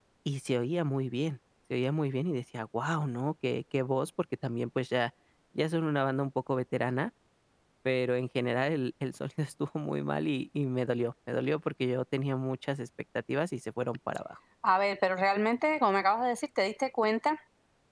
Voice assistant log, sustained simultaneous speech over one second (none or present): none